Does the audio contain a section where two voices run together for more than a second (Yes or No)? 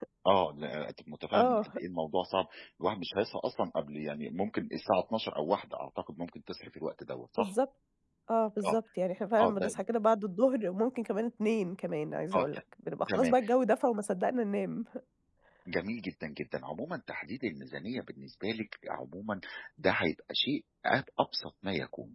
No